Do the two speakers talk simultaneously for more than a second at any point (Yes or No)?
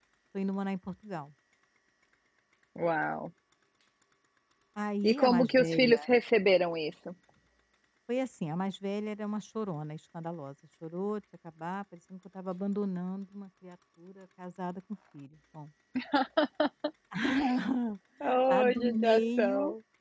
Yes